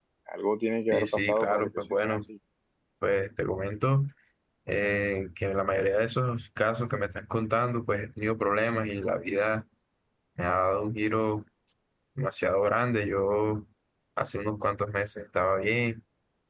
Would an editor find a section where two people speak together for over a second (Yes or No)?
Yes